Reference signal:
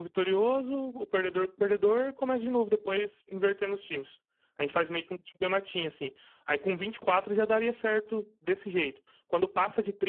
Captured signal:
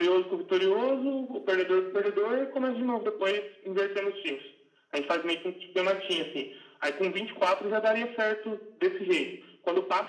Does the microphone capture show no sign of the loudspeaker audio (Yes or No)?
No